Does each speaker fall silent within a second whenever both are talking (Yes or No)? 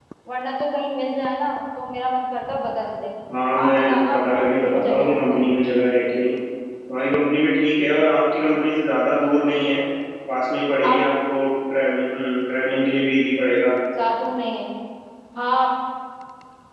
No